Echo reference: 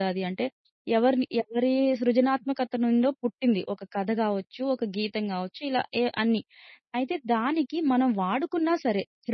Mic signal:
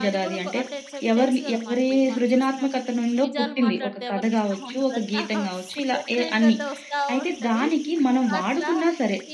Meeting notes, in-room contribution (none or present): present